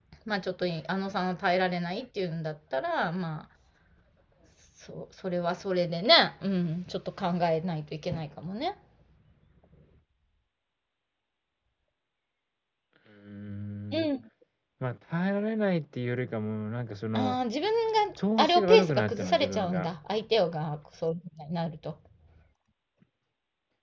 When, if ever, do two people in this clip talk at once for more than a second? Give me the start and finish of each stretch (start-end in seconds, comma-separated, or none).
18.4-19.9